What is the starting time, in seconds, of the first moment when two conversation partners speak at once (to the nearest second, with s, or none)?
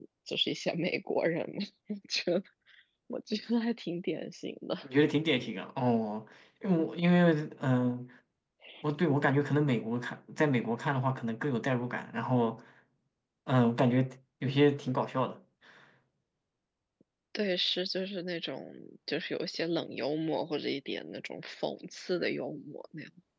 none